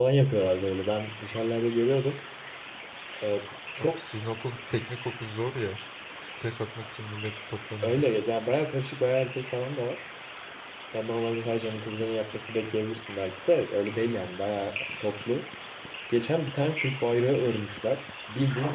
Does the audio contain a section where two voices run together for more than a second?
No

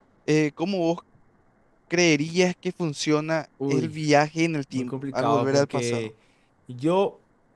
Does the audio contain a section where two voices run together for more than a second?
Yes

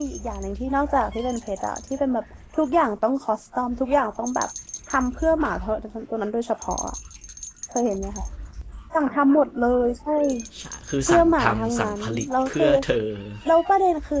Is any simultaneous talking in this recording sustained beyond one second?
Yes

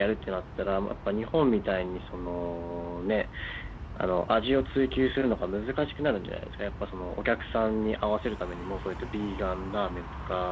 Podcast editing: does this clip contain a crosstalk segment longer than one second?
No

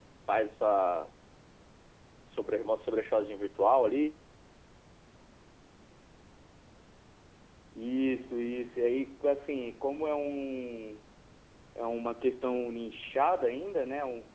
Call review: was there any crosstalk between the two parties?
No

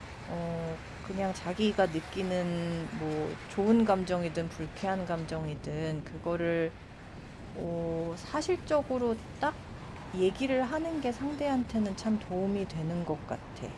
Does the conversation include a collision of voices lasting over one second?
No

